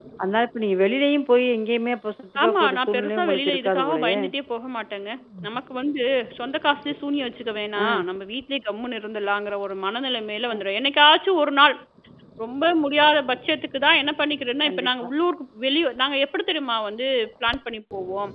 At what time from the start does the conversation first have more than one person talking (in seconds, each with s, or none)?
2.4 s